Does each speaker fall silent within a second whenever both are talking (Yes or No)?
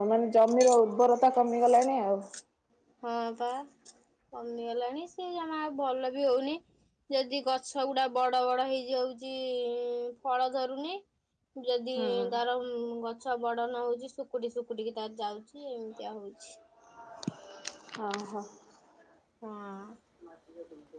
Yes